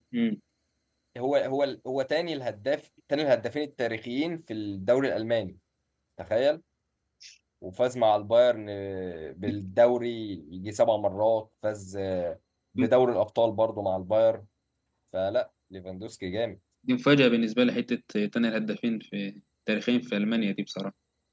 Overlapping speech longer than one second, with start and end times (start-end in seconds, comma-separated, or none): none